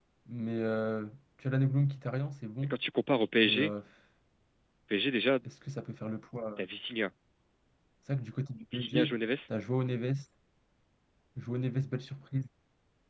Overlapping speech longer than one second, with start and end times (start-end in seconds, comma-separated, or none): none